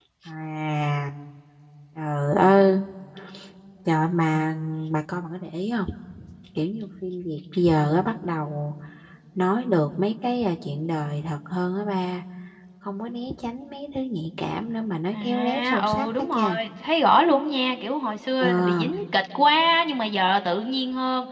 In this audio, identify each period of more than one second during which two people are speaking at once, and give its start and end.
15.1-16.6

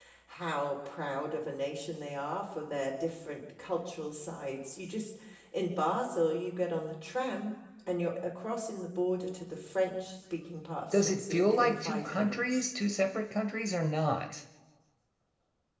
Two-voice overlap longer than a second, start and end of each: 10.9-12.6

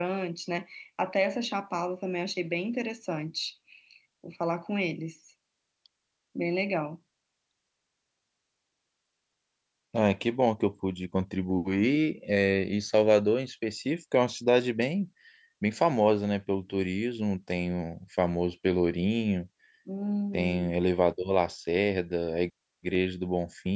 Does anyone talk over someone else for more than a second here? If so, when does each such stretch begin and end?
none

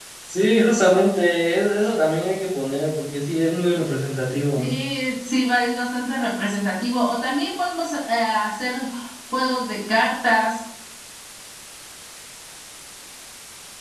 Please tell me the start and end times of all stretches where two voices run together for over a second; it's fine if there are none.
none

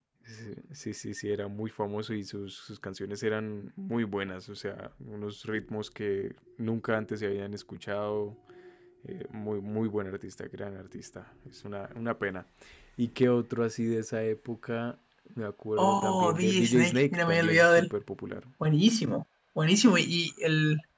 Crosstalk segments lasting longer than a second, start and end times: 15.8-17.9

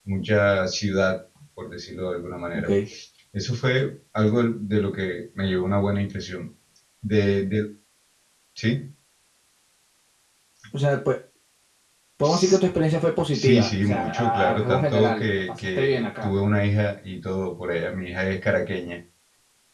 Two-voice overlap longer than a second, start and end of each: 13.3-16.3

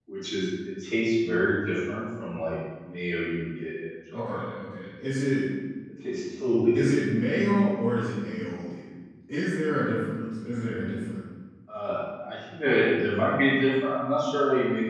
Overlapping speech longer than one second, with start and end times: none

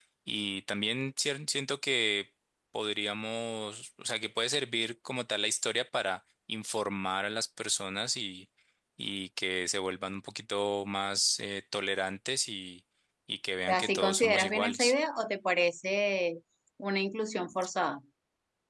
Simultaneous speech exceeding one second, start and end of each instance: 13.7-14.9

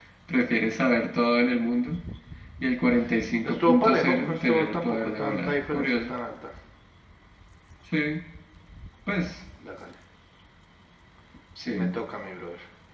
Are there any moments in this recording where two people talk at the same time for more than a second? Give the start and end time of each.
3.6-6.1

